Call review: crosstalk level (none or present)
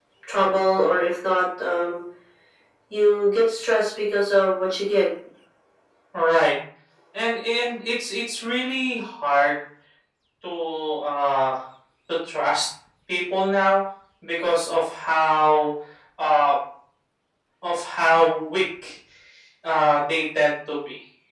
none